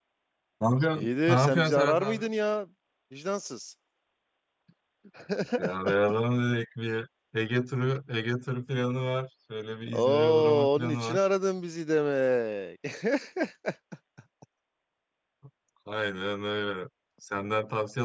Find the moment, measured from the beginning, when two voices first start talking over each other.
1.0 s

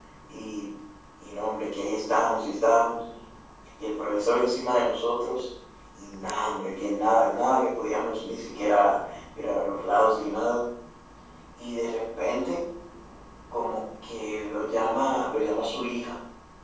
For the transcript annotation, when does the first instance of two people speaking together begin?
none

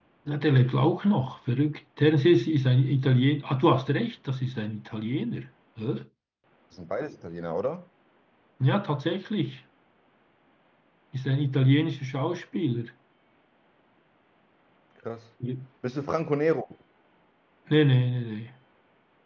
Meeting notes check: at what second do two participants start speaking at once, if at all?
none

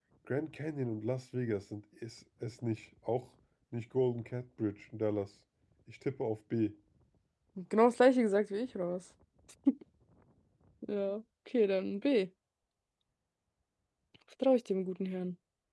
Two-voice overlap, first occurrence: none

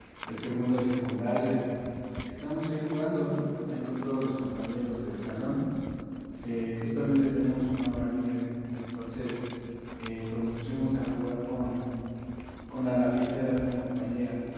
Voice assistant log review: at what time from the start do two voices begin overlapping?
none

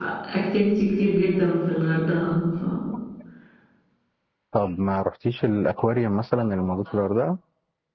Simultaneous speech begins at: none

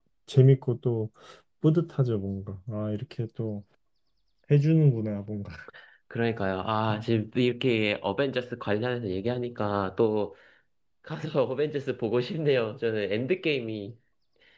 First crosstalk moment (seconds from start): none

